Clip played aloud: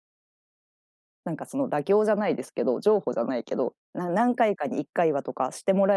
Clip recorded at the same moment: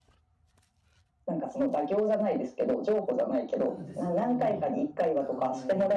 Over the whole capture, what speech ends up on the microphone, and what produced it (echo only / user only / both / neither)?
both